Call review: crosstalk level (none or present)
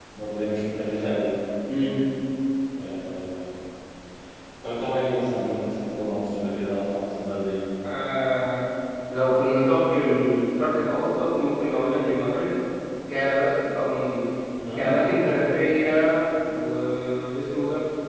none